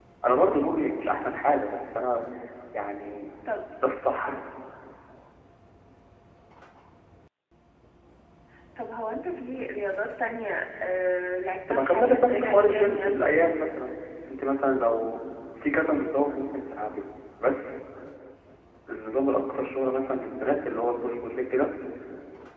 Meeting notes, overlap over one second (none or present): present